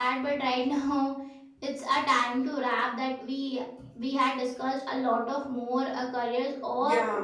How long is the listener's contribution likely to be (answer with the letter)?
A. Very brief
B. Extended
A